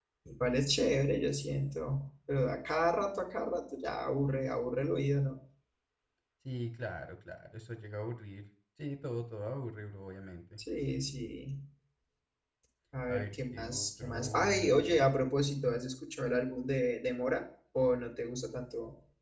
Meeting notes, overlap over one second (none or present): present